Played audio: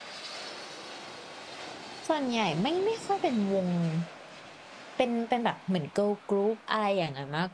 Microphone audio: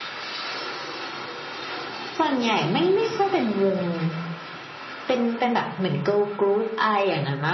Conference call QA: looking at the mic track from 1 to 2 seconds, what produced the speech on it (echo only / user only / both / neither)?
neither